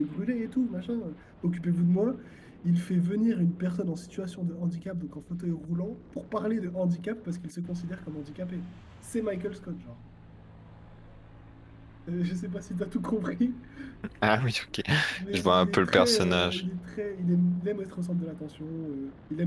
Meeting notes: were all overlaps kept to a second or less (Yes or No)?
No